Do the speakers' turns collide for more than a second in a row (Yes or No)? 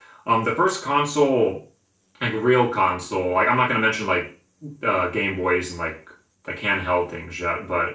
No